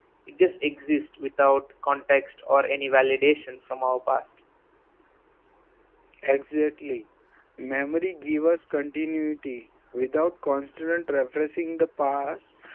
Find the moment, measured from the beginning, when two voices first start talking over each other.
none

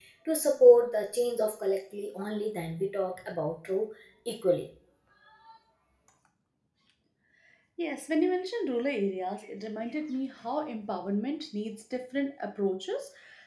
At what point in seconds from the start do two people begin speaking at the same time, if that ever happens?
none

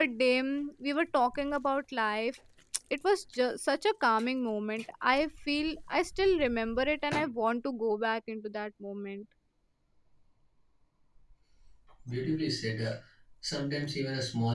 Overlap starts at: none

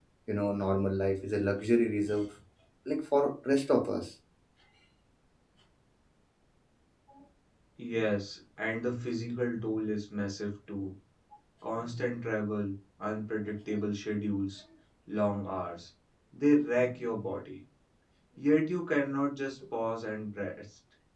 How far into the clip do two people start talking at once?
none

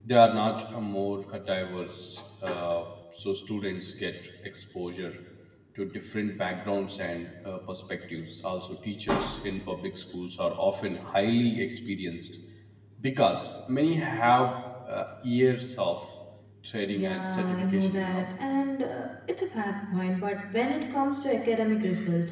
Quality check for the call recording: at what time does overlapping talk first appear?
16.9 s

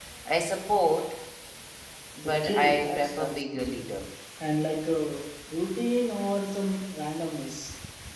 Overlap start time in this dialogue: 2.2 s

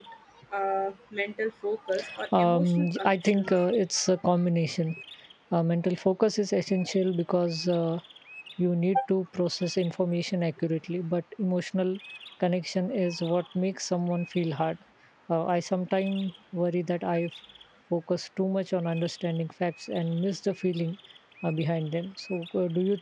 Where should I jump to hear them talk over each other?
2.4 s

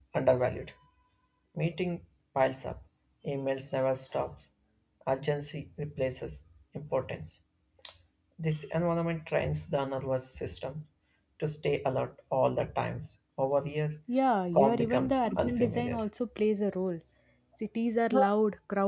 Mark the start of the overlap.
14.5 s

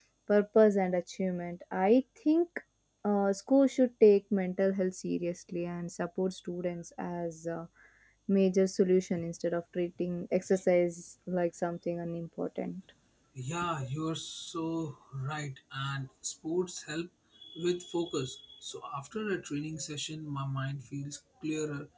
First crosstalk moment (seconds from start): none

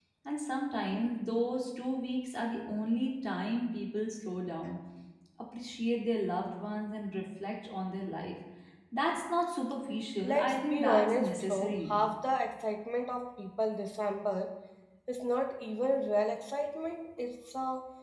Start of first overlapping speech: 10.2 s

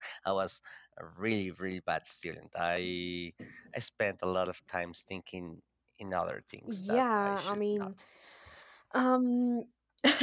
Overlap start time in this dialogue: 6.7 s

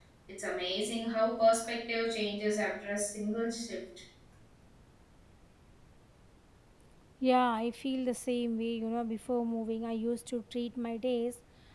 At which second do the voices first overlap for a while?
none

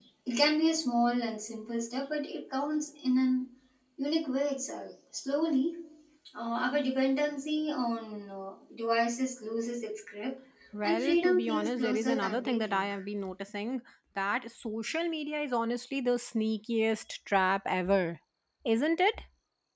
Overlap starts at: 10.8 s

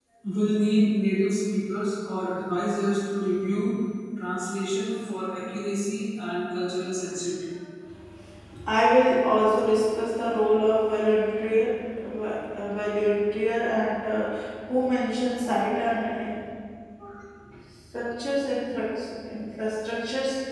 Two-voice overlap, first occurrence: none

